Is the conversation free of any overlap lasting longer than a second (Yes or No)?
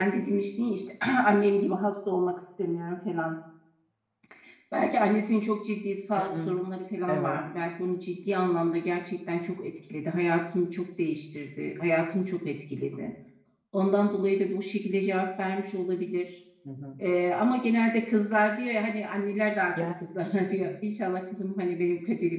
Yes